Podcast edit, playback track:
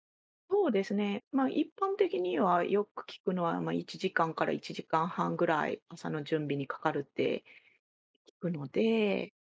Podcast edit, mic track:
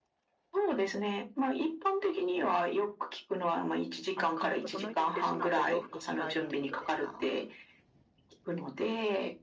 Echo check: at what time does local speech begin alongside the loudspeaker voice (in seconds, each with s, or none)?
4.2 s